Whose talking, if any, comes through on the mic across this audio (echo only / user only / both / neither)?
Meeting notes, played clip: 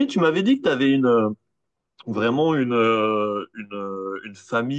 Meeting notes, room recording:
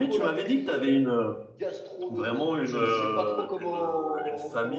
both